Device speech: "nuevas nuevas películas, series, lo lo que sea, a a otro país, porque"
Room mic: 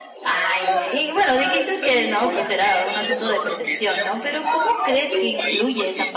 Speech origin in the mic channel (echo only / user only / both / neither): both